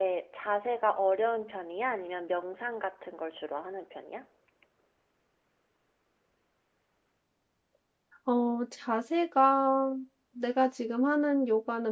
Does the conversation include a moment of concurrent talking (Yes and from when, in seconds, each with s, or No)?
No